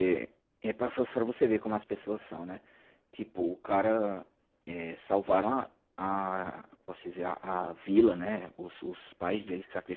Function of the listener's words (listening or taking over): listening